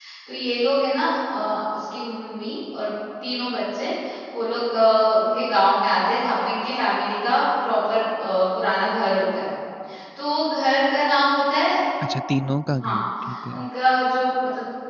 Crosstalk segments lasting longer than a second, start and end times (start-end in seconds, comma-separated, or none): none